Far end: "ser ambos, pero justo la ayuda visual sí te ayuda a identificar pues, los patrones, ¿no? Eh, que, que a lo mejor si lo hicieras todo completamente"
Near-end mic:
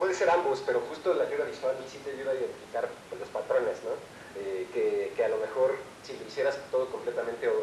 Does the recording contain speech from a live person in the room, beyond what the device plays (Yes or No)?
No